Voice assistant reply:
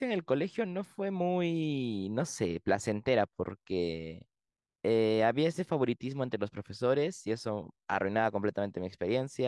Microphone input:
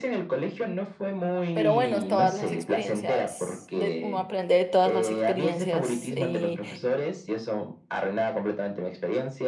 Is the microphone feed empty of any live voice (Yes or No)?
No